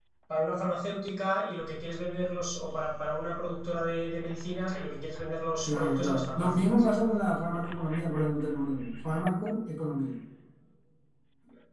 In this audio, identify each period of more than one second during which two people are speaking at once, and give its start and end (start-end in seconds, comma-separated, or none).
5.6-6.8